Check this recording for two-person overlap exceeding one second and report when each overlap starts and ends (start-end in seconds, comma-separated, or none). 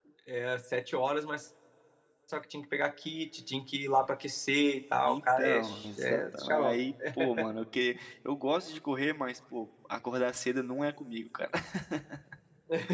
5.0-6.8